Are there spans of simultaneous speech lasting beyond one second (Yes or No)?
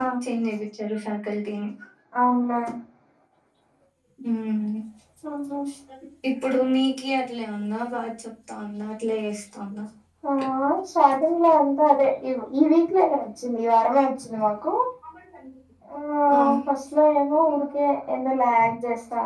No